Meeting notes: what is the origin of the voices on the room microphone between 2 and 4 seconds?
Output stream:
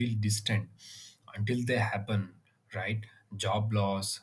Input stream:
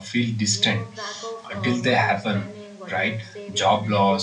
both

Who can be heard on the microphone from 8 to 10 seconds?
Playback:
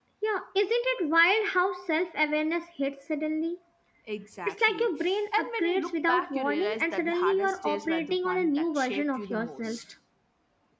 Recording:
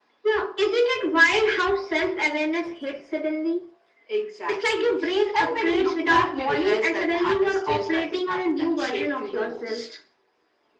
echo only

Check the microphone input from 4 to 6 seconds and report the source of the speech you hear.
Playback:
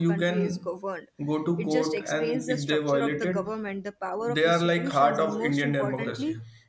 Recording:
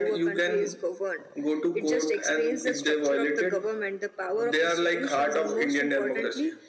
echo only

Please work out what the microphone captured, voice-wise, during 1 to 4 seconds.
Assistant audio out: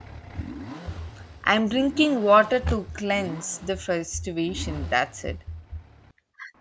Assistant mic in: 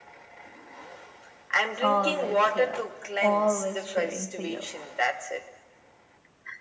both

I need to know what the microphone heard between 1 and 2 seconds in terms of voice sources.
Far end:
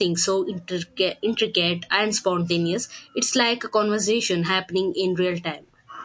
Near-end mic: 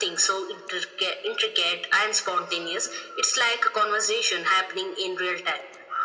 echo only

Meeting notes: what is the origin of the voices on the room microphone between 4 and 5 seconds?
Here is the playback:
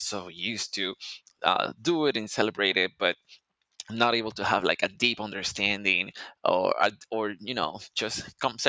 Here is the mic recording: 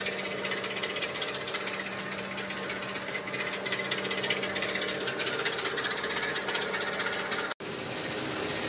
neither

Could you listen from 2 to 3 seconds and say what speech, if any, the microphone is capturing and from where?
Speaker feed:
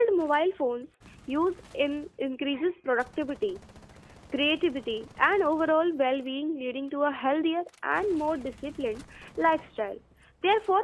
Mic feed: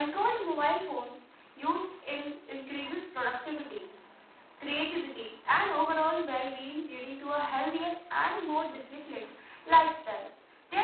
echo only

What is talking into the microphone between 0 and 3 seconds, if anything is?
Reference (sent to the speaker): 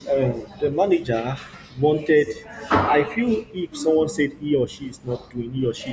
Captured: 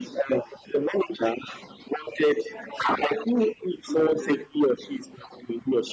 echo only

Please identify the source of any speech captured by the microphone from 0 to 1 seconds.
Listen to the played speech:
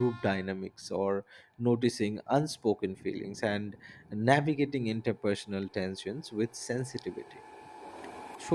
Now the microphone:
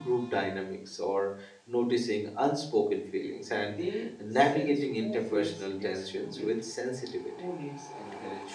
echo only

